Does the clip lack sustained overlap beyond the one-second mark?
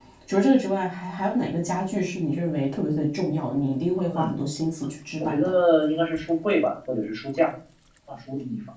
Yes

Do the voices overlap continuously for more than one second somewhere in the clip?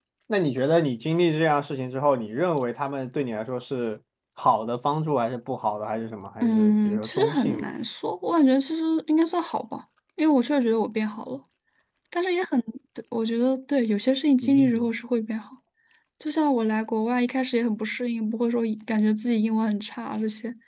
Yes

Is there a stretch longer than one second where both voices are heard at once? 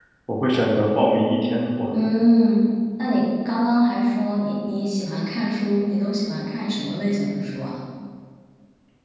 No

